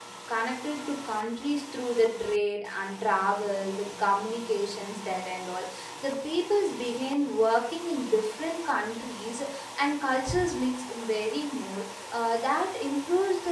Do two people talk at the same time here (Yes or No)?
No